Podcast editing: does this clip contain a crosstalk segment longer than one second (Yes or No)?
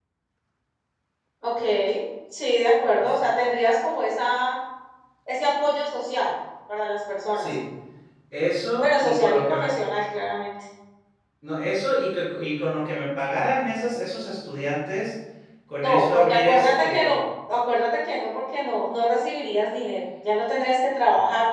Yes